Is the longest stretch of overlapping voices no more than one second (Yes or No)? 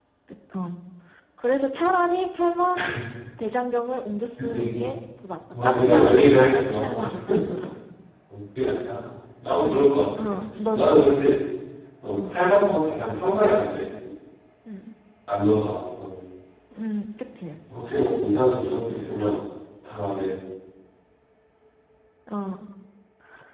No